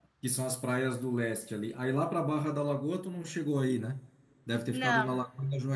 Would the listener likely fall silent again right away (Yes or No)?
Yes